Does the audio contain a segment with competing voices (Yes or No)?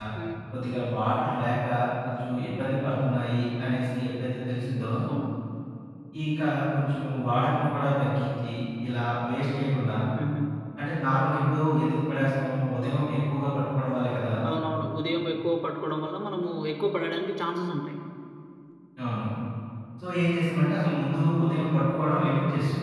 No